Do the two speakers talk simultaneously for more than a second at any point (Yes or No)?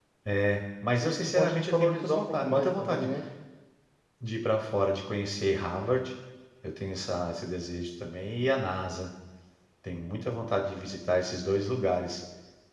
Yes